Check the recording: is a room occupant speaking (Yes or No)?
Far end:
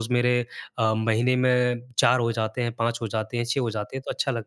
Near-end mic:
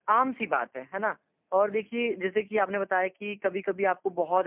Yes